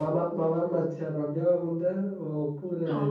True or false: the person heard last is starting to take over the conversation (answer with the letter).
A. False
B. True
B